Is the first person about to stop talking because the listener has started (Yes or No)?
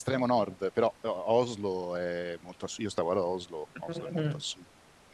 No